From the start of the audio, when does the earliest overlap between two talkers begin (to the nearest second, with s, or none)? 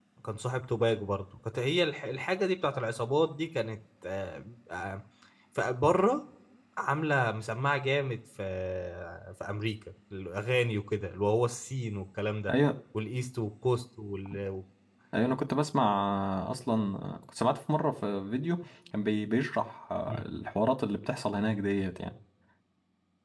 none